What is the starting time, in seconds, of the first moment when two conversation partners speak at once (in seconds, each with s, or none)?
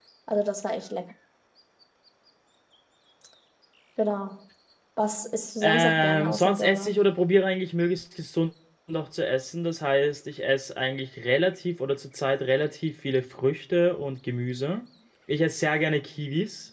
5.6 s